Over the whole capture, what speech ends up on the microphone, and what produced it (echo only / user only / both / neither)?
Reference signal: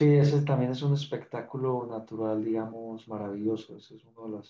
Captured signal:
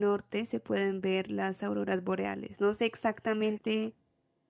user only